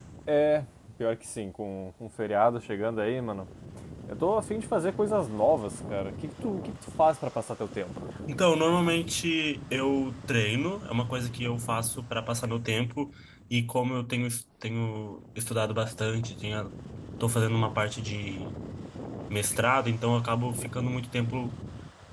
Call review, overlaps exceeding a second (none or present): none